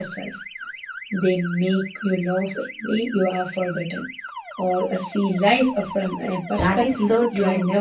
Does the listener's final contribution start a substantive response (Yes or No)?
Yes